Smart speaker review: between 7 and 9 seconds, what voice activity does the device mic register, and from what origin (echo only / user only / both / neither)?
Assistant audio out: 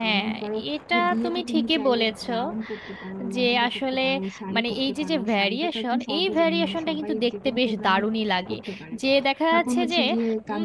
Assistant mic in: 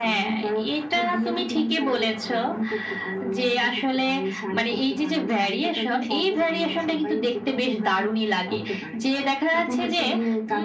echo only